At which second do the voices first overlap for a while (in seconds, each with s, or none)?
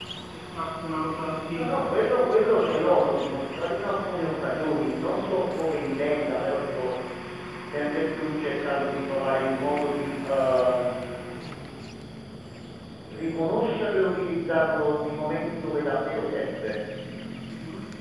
none